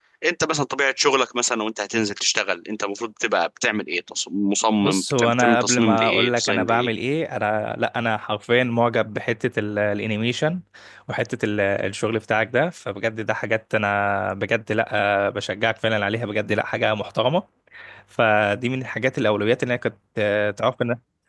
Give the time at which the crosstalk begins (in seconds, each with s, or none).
4.8 s